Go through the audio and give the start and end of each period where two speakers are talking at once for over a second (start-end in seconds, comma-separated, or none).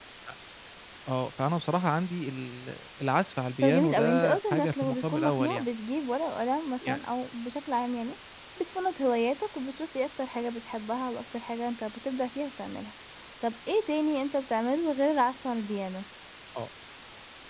3.6-5.7